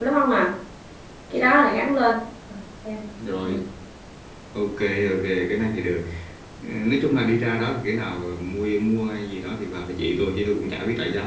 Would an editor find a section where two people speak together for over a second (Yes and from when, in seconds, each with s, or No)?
No